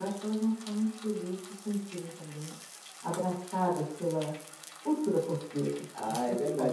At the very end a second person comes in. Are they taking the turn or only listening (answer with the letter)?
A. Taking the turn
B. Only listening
A